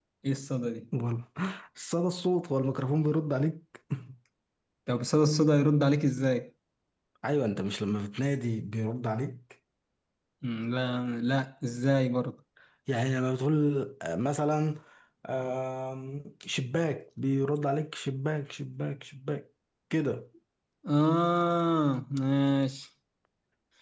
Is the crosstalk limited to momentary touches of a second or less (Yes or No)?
Yes